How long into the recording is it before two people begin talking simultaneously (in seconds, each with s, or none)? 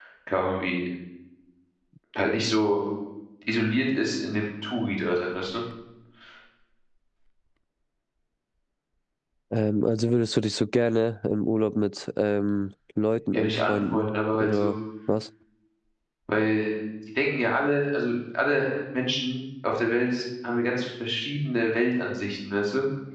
13.3 s